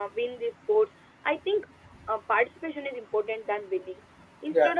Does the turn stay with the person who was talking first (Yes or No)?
Yes